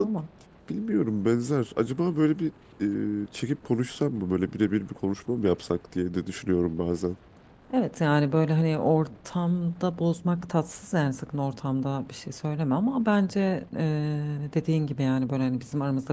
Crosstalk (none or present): none